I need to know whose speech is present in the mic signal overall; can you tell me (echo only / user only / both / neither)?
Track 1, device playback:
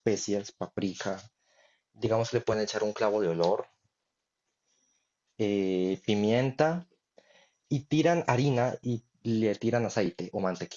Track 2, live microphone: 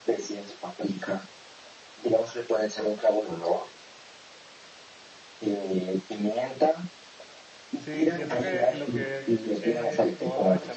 both